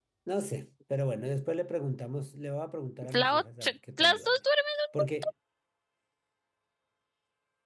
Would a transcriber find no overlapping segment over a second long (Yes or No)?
No